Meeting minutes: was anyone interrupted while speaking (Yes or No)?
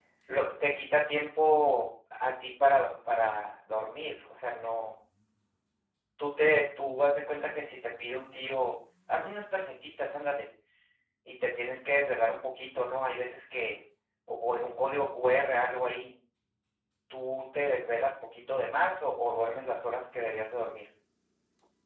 No